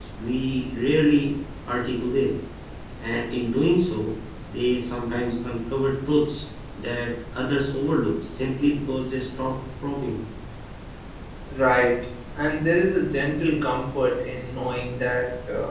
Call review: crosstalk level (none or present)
none